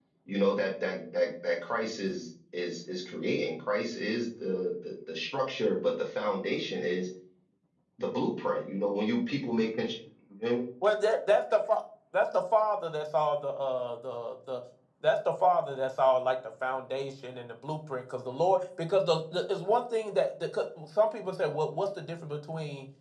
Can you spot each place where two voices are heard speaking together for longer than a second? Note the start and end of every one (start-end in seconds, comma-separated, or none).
none